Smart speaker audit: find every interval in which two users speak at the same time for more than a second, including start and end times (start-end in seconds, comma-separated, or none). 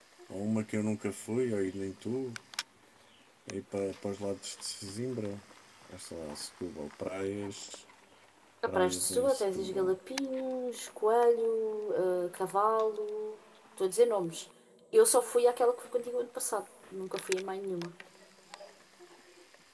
8.7-9.9